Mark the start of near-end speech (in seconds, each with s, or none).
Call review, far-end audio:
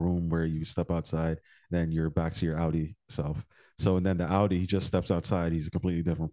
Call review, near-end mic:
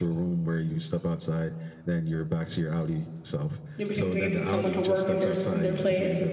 3.8 s